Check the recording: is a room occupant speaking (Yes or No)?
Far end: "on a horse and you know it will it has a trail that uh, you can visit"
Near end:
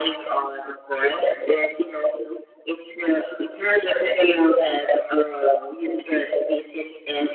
No